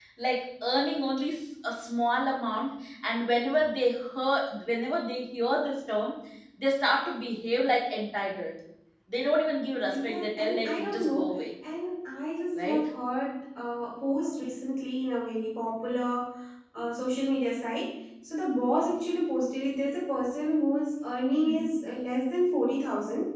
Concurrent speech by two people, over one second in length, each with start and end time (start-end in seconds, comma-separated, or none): 9.8-11.4